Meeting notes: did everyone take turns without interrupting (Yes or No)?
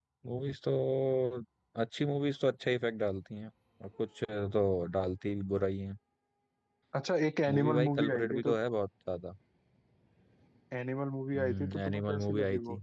No